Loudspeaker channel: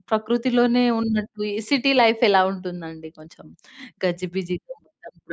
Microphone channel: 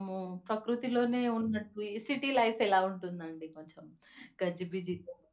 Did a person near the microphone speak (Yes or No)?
No